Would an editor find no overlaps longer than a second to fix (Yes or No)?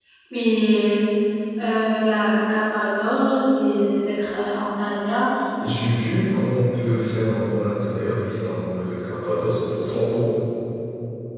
Yes